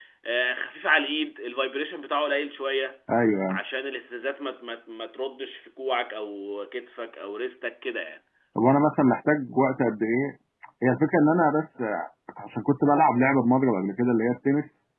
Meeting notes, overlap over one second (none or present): none